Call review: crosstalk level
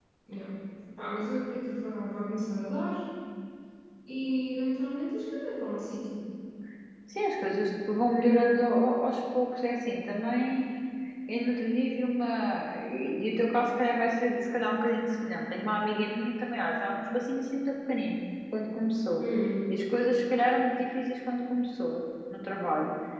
none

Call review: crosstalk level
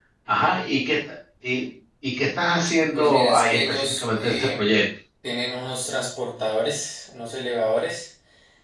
present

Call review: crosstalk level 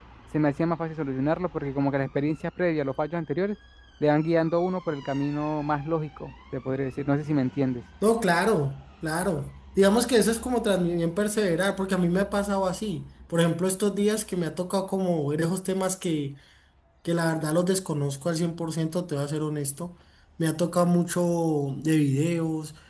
none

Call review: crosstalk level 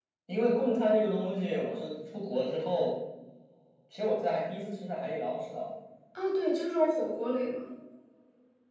none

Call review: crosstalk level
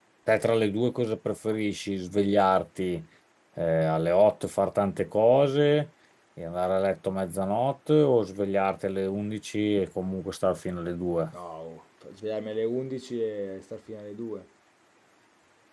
none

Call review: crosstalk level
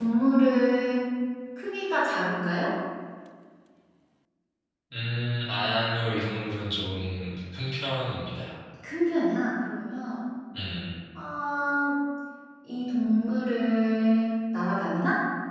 none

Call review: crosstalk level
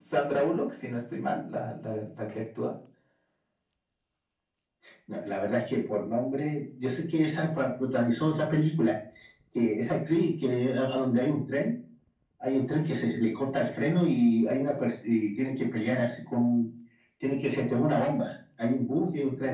none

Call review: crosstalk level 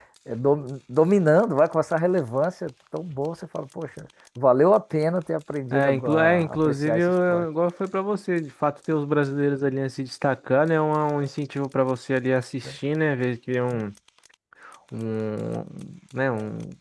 present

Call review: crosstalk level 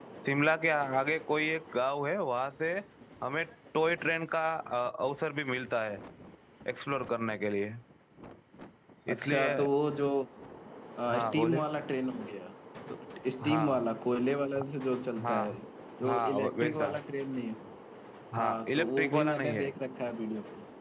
present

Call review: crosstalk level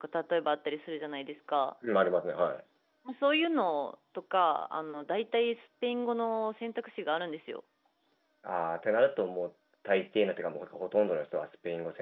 none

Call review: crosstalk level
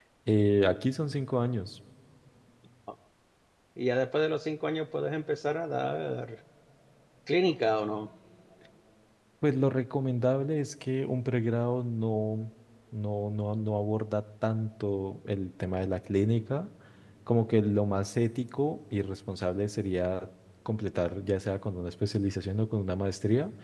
none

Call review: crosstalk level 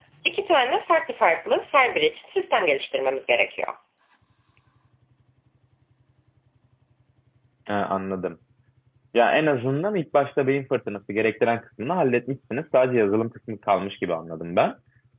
none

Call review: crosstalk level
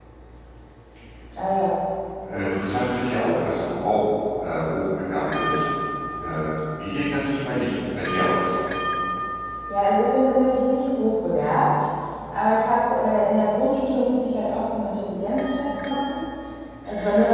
none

